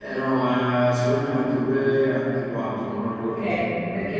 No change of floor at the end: No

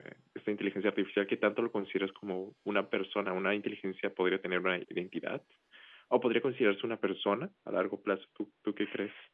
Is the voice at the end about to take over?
Yes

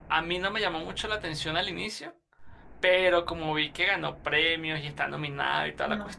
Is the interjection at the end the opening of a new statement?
No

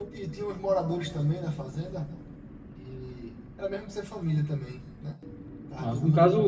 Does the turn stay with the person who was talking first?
No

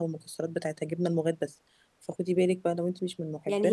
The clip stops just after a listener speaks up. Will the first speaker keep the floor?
No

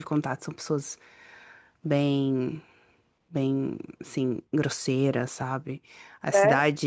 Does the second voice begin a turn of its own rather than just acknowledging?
No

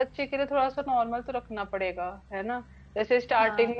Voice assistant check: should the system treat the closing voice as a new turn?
No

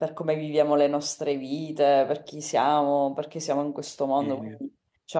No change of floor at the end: Yes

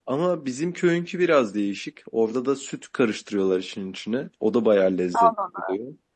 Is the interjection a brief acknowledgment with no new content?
No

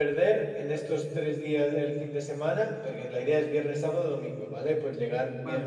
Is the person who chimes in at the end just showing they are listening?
Yes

